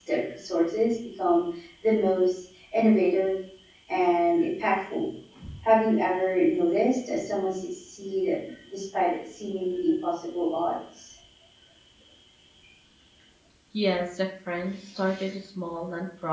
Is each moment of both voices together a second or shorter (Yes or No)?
Yes